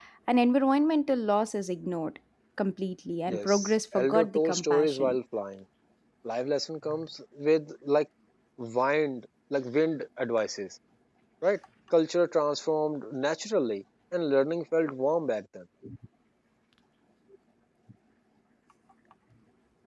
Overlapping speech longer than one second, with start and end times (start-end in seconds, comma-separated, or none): 3.3-5.2